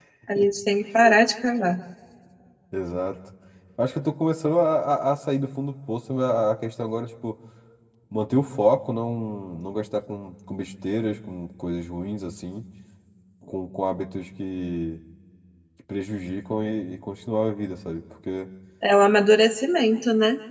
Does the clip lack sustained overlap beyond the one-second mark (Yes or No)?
Yes